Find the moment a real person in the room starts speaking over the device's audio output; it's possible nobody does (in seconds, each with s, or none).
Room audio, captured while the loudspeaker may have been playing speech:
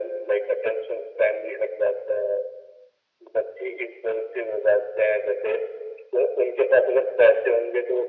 none